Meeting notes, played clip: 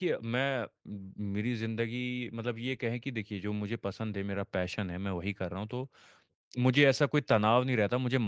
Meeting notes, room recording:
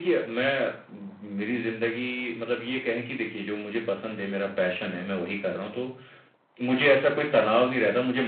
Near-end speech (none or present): none